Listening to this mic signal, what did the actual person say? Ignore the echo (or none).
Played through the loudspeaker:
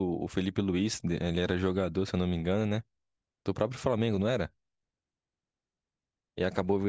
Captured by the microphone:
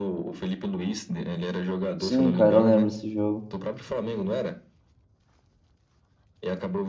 Sim, cara, eu lembro desse jogo.